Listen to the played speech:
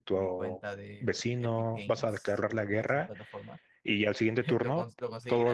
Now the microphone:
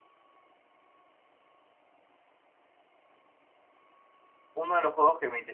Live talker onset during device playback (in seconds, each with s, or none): 4.5 s